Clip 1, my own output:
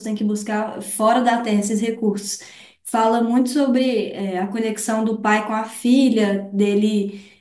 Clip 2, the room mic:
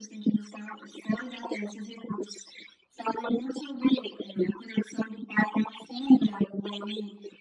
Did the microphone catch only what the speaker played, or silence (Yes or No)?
Yes